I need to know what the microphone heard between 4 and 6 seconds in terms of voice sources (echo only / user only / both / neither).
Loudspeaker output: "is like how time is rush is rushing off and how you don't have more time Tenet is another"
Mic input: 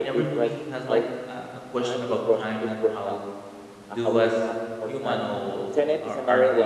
both